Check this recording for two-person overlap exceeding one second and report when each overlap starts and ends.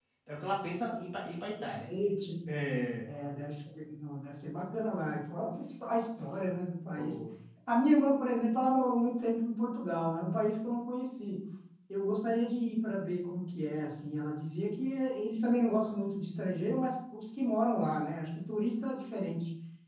none

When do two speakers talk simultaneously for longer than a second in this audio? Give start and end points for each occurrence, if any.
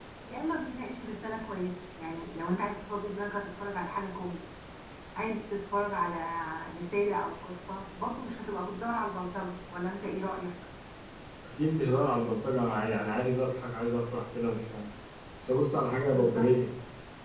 none

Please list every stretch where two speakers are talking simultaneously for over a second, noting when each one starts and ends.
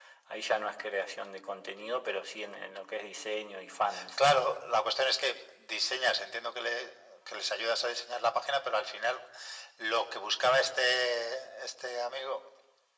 none

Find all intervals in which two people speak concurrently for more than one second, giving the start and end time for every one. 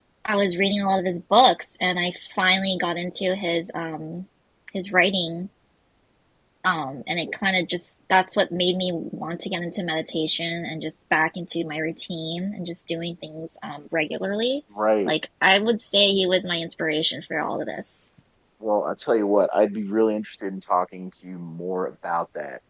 none

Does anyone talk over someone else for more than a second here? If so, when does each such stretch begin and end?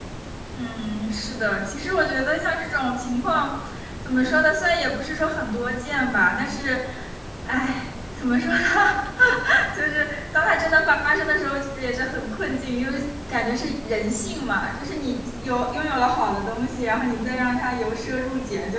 none

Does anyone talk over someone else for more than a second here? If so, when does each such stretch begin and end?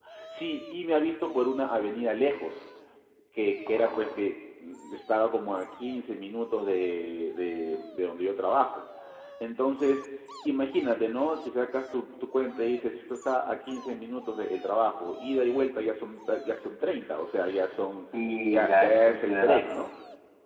18.5-19.7

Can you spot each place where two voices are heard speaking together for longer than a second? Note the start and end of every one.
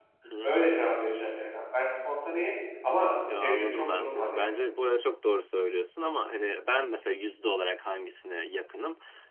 3.3-4.5

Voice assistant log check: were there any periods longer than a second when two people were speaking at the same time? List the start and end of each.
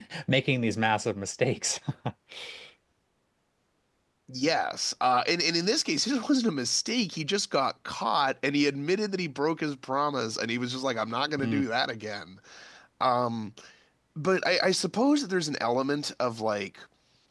none

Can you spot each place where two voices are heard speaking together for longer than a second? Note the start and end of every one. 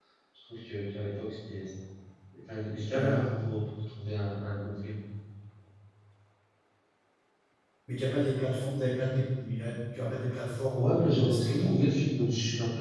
10.7-11.9

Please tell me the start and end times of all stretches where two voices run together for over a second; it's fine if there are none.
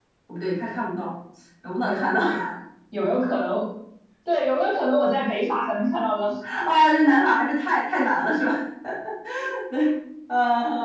none

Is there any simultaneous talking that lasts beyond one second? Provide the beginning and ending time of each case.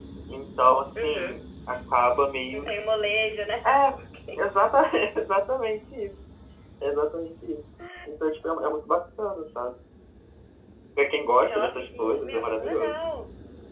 11.5-13.0

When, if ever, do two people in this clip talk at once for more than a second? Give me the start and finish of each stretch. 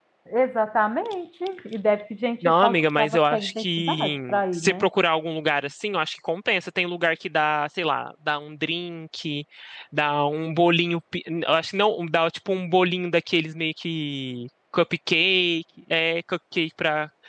2.4-4.9

